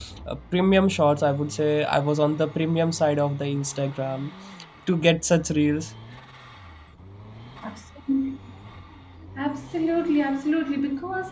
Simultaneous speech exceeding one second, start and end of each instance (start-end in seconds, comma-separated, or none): none